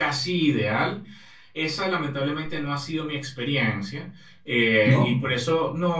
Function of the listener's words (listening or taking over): listening